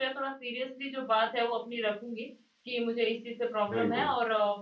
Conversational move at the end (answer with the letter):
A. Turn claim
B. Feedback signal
B